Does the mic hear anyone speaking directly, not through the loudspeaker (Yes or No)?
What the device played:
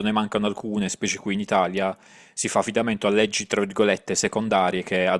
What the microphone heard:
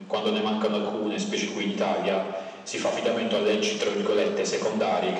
No